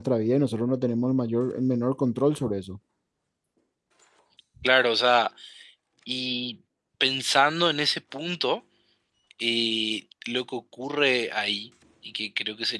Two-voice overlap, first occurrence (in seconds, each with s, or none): none